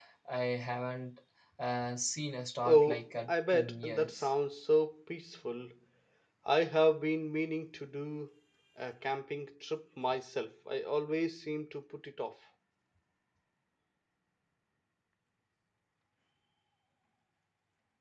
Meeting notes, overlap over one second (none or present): present